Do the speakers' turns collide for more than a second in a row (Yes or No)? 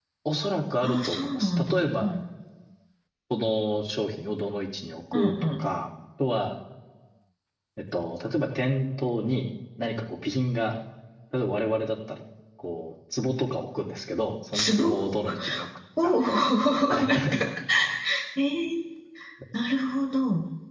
Yes